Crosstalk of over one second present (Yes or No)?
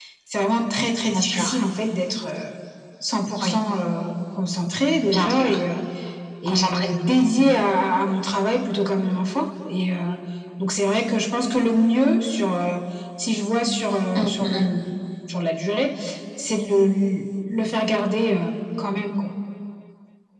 No